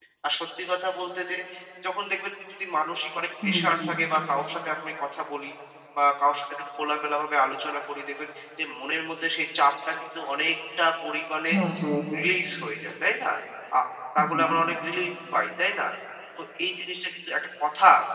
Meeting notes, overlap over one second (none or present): none